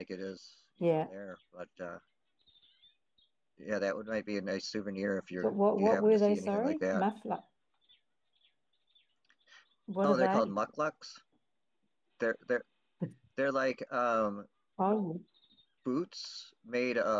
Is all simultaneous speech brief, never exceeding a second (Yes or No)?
No